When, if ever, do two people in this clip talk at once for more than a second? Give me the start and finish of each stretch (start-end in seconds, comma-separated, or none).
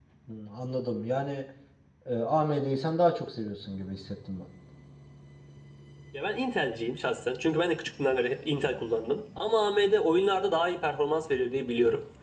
none